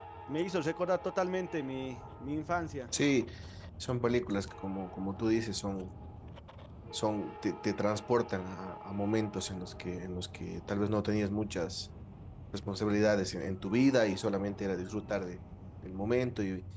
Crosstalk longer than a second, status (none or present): none